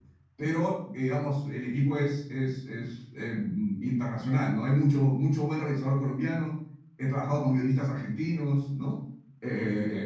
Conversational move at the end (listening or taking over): listening